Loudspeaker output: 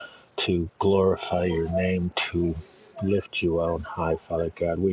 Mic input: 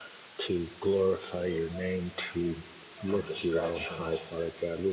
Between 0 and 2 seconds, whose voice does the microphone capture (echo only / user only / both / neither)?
echo only